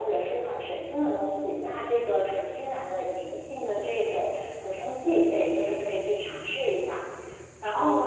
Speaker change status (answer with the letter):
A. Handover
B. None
A